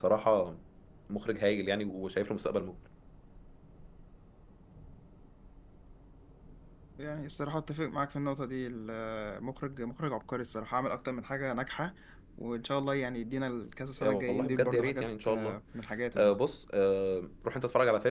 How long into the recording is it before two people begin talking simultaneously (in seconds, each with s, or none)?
14.0 s